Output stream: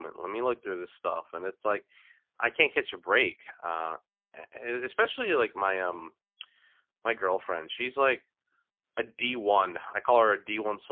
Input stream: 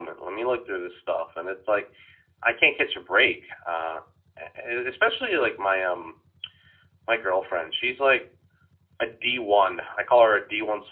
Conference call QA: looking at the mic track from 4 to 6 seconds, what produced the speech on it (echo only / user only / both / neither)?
echo only